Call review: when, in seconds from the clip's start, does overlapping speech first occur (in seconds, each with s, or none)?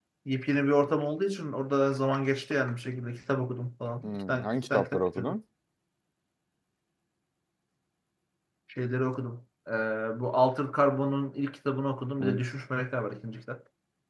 4.0 s